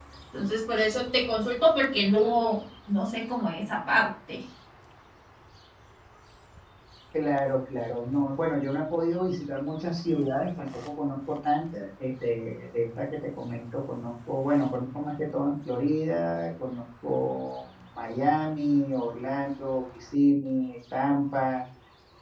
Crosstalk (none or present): none